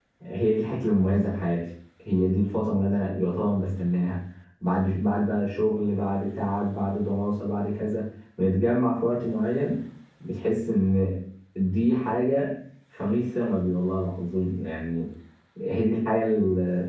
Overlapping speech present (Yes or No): No